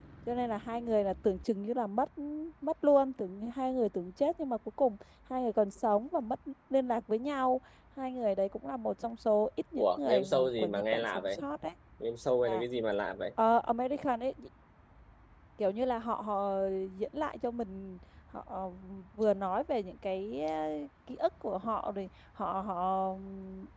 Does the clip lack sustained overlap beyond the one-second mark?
No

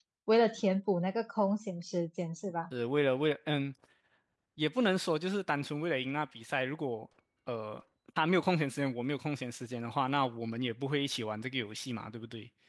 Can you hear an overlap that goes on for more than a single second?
No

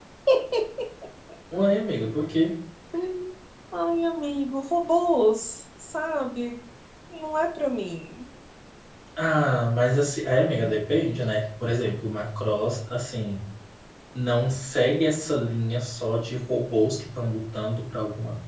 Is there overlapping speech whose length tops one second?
No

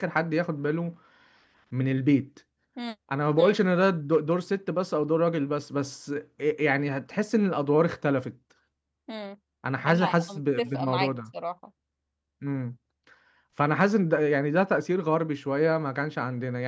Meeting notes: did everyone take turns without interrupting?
No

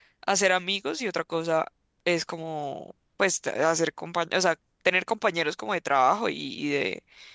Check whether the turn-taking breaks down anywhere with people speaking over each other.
No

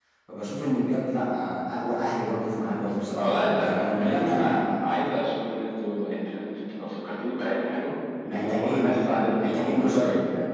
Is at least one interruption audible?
Yes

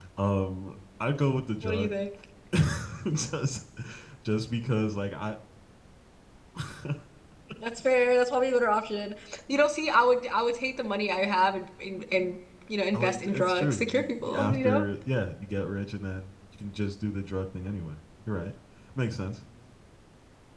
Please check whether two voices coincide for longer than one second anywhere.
Yes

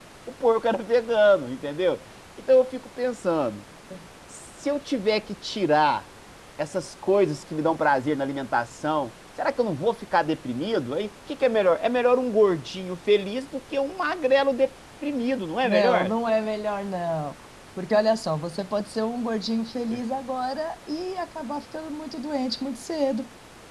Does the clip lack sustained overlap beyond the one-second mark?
Yes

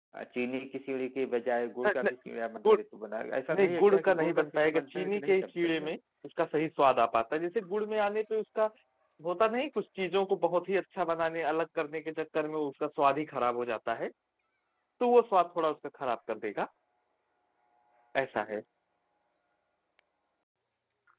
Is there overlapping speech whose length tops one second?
Yes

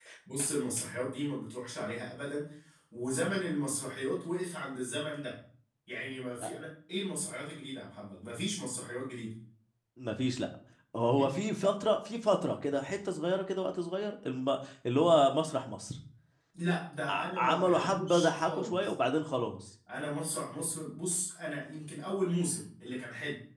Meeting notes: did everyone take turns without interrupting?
No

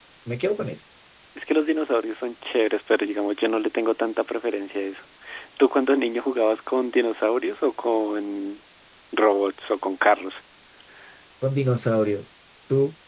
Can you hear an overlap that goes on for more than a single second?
No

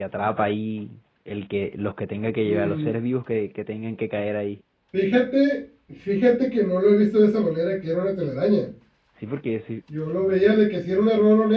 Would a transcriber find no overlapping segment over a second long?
Yes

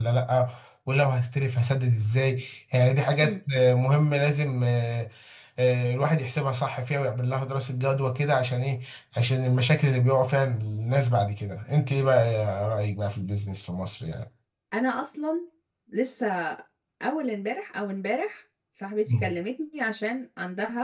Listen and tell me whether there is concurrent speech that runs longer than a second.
No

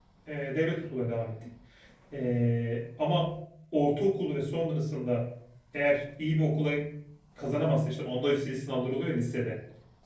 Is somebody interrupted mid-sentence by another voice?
No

